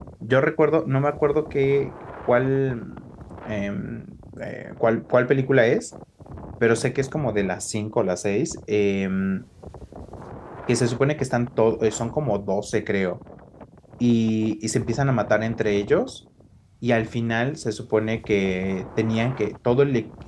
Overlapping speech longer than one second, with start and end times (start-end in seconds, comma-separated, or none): none